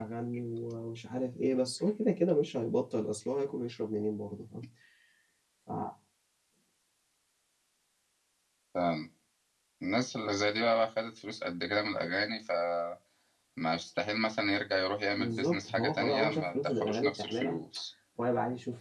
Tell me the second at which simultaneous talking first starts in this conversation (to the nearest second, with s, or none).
15 s